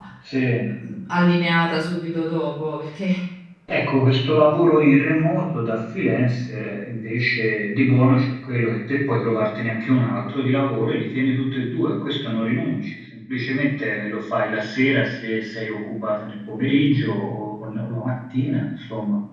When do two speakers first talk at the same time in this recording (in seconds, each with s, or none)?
none